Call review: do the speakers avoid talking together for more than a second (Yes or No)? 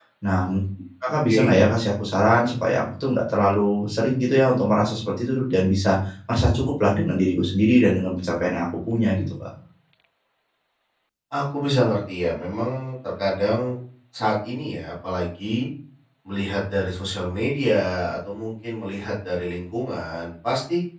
Yes